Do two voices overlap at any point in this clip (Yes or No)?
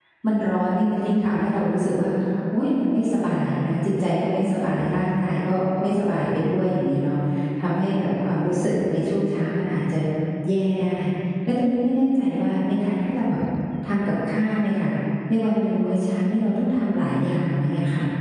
No